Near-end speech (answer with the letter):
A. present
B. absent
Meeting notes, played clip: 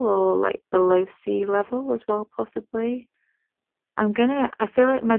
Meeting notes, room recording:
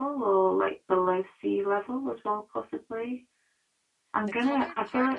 A